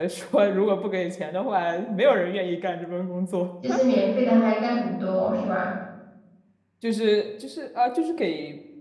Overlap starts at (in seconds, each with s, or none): none